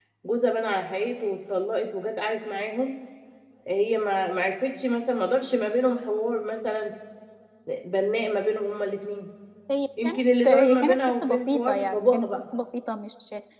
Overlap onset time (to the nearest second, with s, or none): 10 s